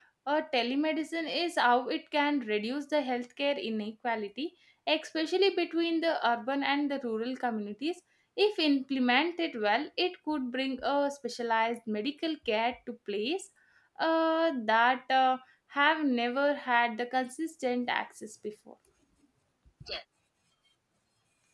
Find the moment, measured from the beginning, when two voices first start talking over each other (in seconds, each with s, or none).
none